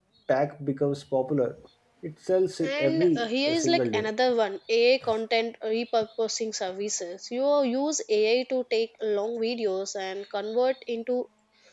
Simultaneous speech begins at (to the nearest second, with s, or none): 3 s